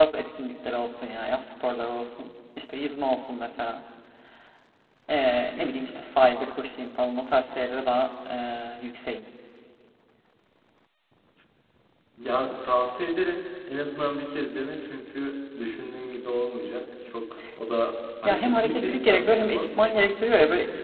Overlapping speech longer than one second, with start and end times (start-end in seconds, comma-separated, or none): 18.2-19.7